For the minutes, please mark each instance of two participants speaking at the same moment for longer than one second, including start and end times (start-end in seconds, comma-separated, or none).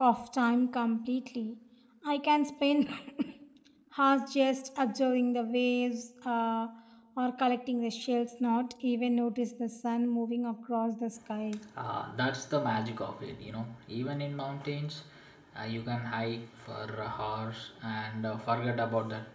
none